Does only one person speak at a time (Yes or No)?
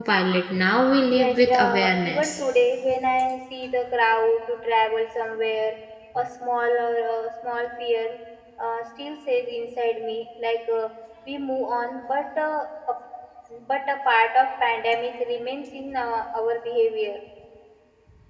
No